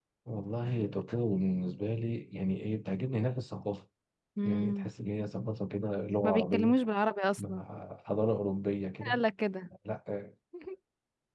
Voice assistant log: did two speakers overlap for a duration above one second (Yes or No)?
No